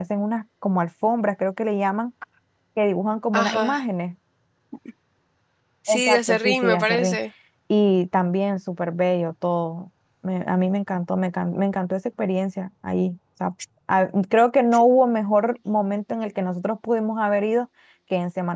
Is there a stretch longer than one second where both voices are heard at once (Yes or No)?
Yes